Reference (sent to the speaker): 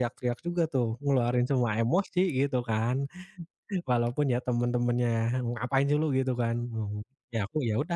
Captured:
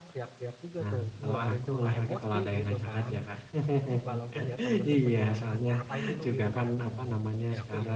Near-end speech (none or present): present